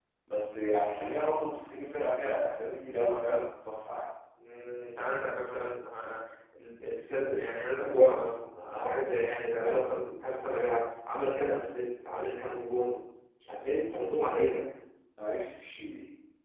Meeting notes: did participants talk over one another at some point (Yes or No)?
No